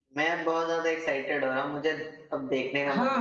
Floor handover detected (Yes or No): Yes